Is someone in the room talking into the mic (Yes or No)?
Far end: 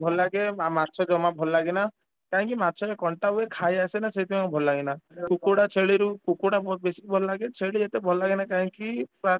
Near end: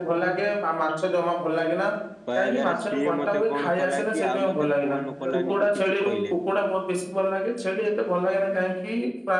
Yes